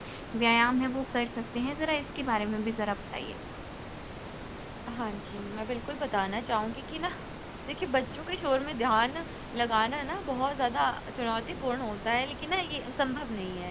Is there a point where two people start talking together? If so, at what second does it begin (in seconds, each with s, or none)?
none